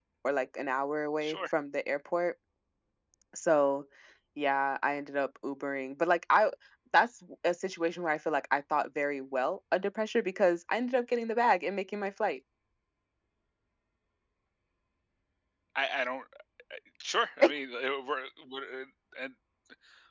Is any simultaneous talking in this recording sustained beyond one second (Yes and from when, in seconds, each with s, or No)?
No